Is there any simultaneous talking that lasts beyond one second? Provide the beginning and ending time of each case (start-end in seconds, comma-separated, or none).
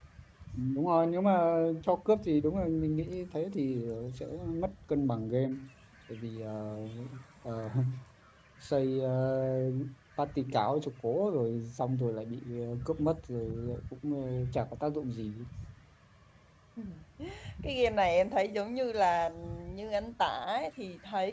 none